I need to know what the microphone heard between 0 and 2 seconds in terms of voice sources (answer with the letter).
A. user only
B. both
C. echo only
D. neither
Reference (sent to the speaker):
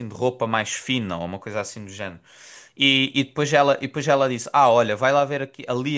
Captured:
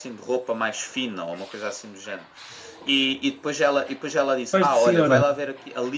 C